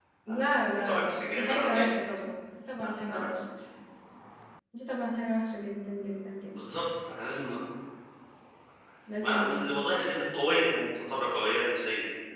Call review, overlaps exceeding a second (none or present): present